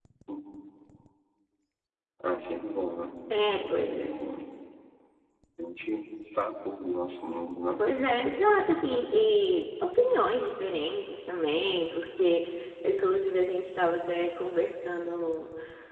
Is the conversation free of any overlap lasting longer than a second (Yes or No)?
Yes